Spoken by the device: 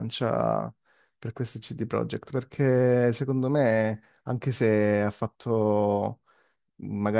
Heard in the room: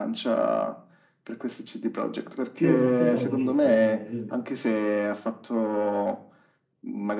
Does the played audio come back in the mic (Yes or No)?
Yes